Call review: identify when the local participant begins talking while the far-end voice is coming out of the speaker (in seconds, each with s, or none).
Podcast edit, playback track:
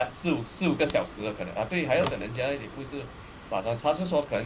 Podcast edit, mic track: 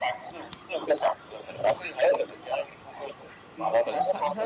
3.5 s